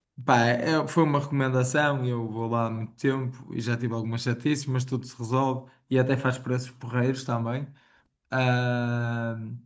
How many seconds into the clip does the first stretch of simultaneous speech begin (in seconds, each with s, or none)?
none